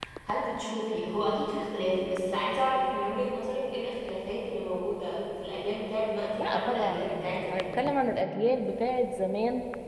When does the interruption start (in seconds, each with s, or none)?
6.4 s